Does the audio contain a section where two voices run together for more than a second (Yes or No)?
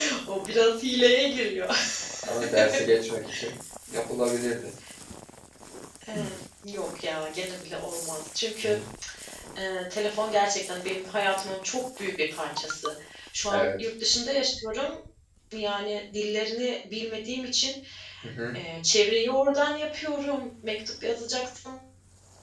No